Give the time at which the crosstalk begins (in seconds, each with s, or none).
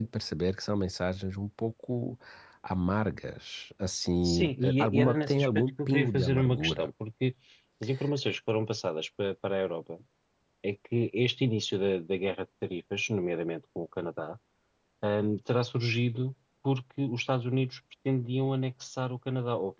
4.2 s